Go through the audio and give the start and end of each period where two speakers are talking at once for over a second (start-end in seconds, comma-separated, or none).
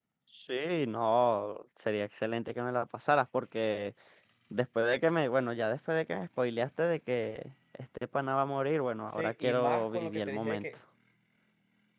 9.2-10.6